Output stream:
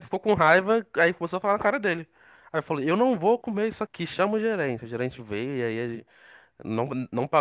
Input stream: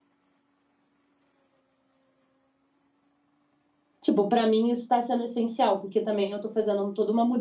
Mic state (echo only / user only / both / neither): user only